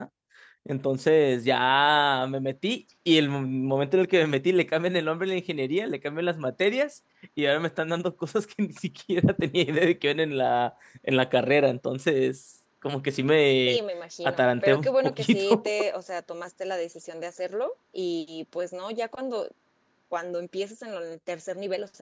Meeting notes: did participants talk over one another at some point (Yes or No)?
Yes